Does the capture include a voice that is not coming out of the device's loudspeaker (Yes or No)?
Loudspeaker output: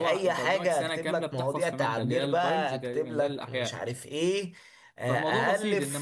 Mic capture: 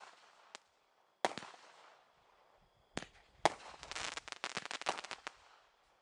No